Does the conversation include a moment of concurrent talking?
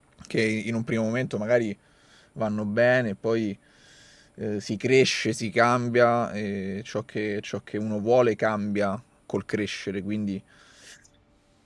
No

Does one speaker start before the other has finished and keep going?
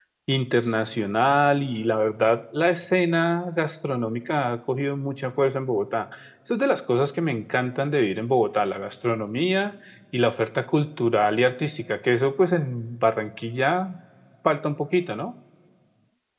No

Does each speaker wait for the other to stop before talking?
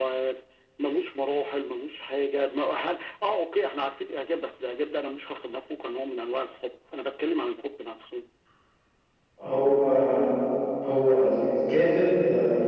Yes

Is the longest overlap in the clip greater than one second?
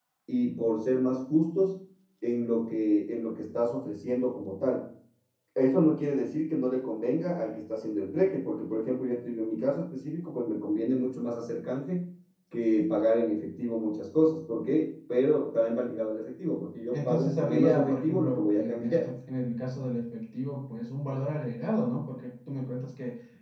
Yes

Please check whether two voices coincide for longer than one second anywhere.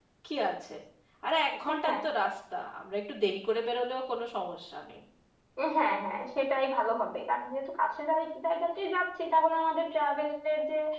No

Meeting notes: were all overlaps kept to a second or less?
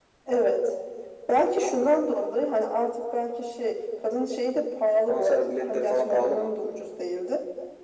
No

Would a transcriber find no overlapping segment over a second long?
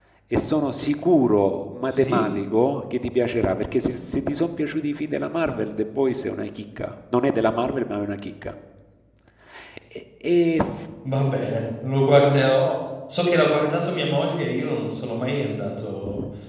Yes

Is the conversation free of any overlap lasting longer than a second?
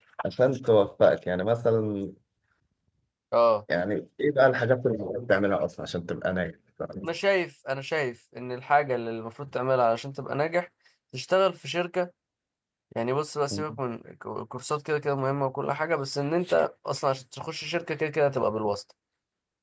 Yes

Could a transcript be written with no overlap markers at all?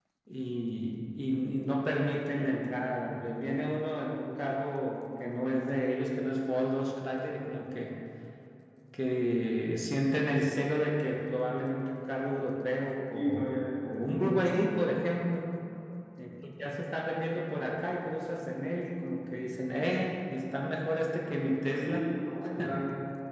No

